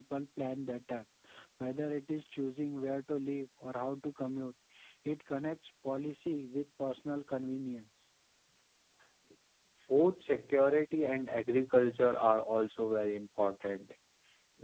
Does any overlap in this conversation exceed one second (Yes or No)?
No